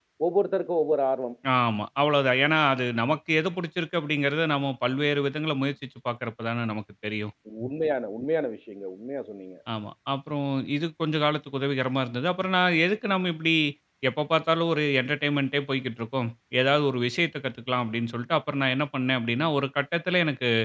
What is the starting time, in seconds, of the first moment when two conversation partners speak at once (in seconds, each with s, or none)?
none